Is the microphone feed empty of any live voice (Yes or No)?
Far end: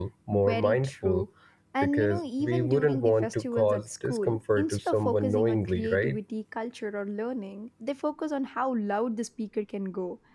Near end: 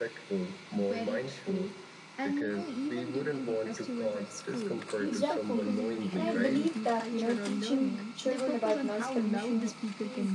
No